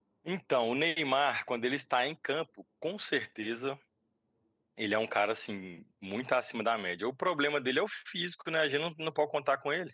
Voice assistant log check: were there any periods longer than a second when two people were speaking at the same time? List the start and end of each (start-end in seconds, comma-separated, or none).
none